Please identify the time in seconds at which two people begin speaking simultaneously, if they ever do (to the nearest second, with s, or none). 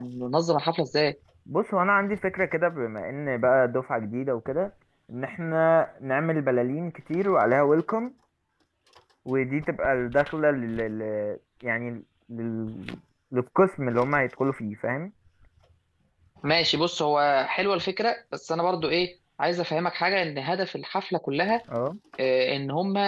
none